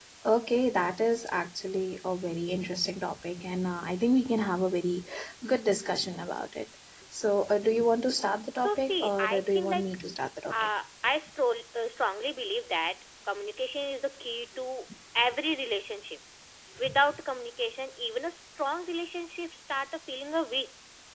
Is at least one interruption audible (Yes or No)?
Yes